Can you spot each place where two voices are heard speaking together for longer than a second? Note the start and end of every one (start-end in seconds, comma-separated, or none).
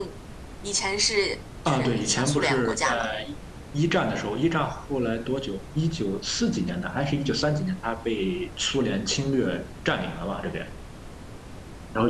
1.7-3.0